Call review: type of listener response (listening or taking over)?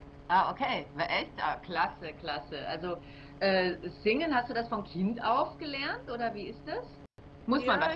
taking over